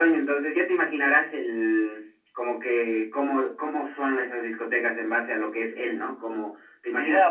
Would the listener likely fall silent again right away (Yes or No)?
No